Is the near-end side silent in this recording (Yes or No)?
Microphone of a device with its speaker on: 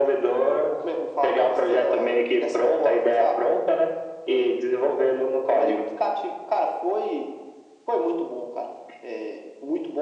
Yes